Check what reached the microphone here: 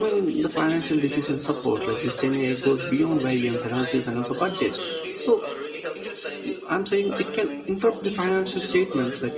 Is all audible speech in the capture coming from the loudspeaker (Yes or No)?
No